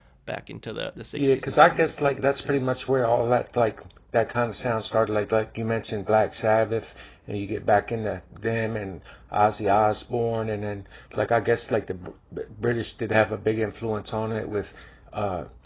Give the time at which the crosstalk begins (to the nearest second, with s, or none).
1 s